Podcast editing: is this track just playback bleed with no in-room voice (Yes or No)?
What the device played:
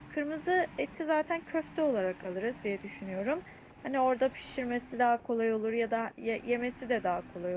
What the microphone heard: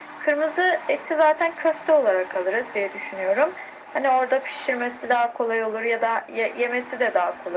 Yes